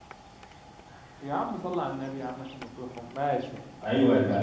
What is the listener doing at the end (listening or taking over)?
taking over